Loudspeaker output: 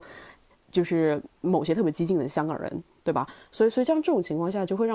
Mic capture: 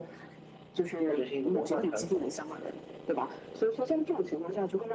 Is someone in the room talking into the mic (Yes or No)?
Yes